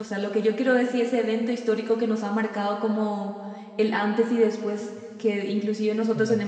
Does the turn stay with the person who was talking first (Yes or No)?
Yes